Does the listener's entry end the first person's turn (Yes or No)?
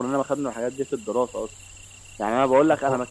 No